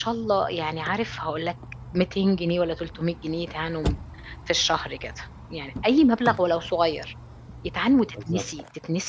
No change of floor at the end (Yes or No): Yes